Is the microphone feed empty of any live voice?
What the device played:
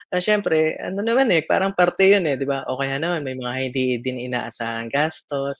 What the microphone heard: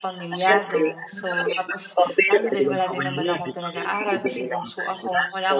No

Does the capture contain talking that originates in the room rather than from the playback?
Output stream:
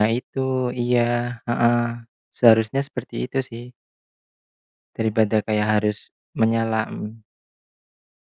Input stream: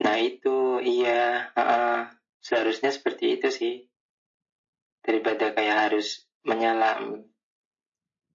No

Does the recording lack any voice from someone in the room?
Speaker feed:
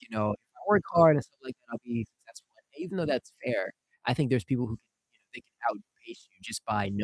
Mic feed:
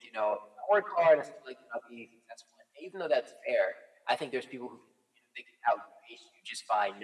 Yes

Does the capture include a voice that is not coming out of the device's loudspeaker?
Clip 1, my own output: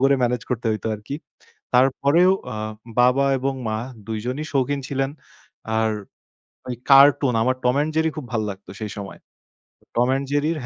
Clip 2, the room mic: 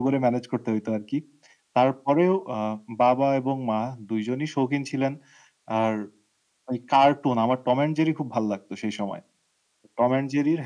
No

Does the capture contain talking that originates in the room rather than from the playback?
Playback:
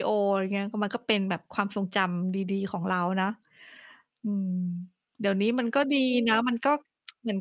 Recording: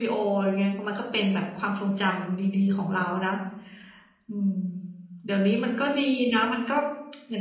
No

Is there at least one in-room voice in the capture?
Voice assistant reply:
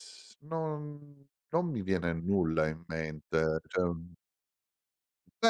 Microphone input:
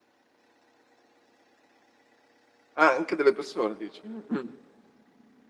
Yes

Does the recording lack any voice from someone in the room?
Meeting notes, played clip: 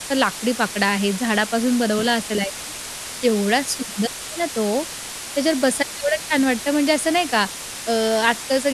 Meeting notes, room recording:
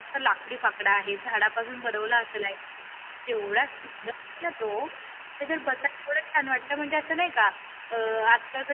Yes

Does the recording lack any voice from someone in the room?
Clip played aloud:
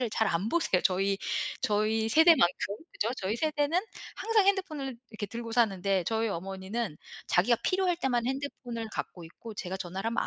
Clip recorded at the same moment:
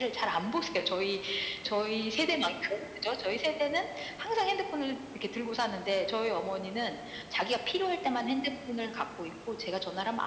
Yes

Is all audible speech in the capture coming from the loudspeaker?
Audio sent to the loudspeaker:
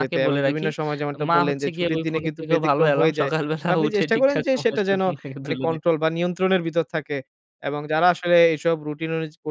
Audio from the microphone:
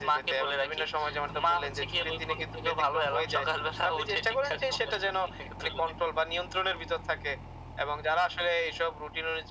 Yes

